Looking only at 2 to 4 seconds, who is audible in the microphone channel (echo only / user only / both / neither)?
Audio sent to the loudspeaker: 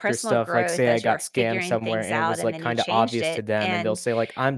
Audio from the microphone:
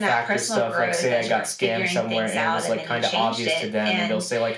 echo only